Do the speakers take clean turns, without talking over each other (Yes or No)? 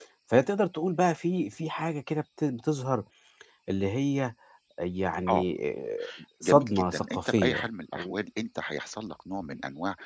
No